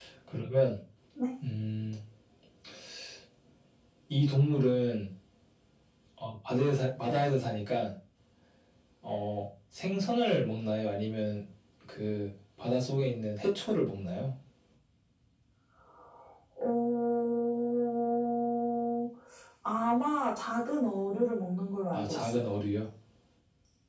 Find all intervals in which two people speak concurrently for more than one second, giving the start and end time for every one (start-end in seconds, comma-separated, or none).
none